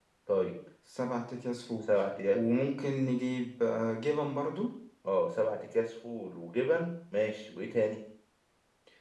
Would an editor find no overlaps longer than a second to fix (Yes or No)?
Yes